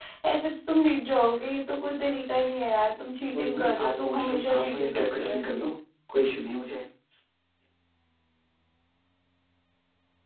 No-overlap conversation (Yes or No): No